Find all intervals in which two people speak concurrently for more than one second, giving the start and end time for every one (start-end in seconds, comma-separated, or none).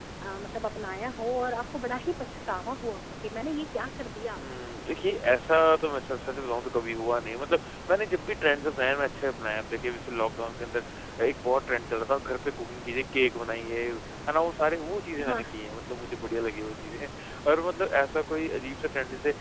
none